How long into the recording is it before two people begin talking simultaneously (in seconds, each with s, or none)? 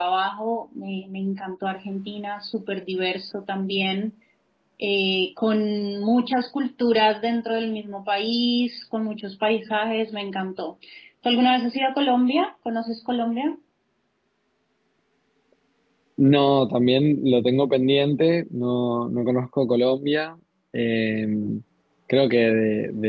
none